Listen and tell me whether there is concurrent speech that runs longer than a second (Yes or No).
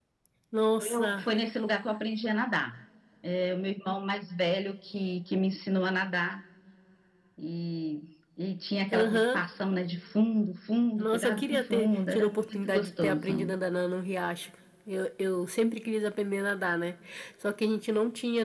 Yes